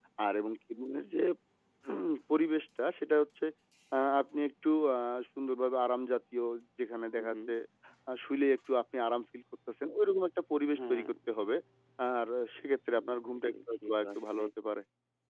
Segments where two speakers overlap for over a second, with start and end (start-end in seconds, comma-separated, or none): 12.9-14.4